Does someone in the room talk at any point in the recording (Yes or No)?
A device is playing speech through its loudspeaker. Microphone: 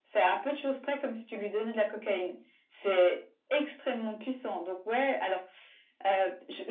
No